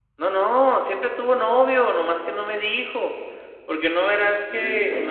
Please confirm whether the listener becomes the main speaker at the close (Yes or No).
No